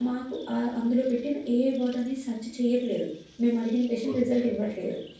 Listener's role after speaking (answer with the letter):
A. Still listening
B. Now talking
A